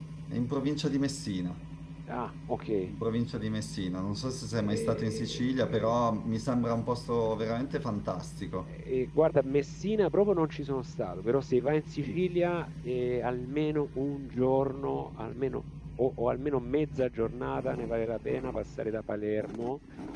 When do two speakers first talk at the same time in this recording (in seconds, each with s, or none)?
4.6 s